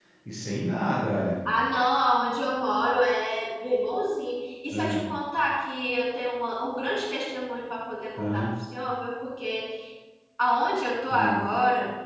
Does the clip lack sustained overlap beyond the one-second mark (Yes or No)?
Yes